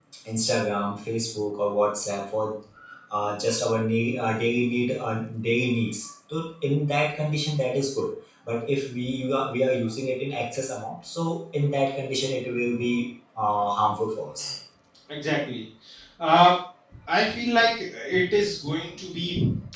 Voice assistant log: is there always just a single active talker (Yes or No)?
Yes